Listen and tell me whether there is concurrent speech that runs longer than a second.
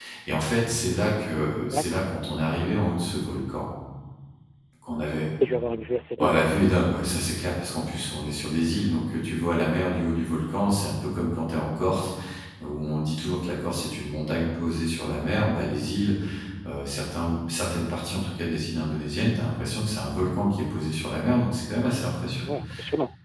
No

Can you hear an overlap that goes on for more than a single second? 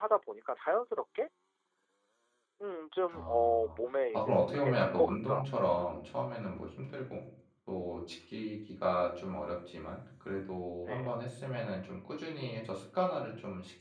Yes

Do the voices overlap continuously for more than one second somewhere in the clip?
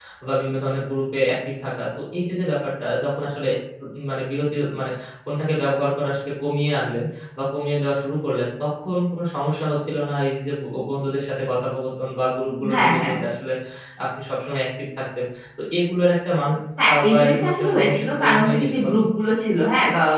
Yes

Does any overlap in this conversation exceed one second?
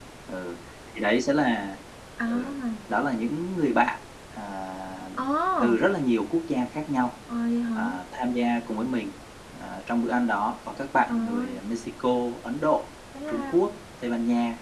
No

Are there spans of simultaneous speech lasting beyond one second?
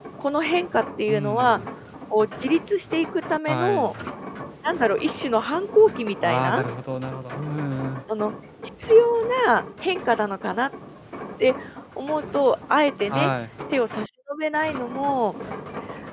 No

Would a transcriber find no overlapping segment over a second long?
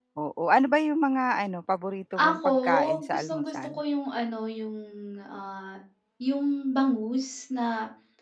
No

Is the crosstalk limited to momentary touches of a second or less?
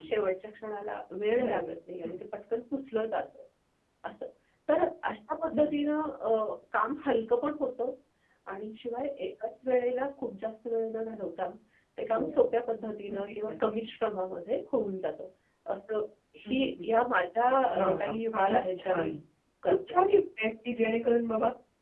No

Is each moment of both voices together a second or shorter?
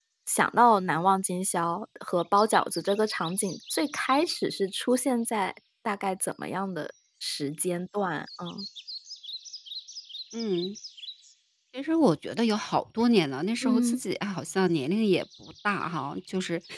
Yes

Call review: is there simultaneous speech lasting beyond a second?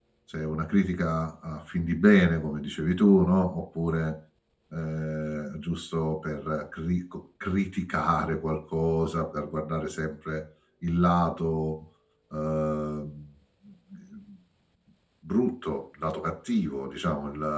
No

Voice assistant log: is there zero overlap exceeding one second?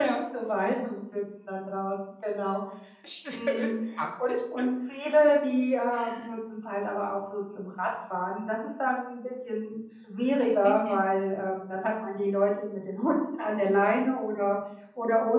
Yes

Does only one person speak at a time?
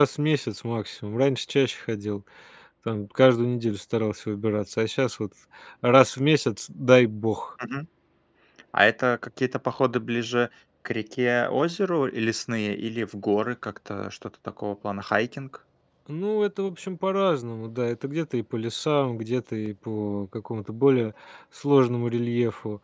Yes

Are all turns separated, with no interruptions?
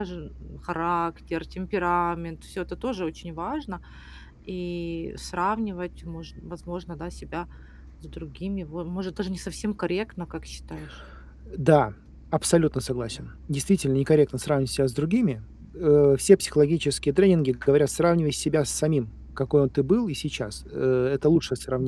Yes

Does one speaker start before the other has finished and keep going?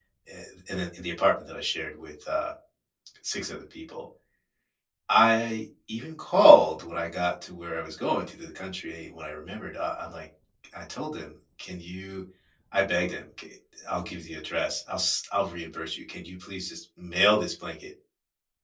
No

